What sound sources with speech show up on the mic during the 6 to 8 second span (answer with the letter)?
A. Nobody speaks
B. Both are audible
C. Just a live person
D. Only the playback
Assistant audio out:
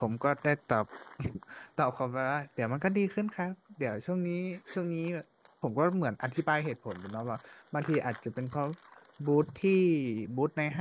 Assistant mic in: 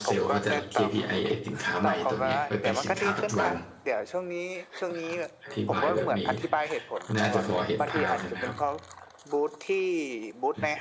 B